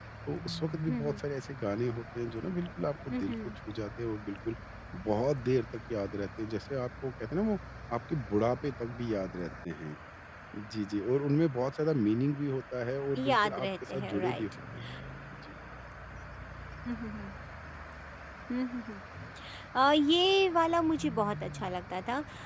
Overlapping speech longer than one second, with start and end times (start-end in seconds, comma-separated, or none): 13.2-14.4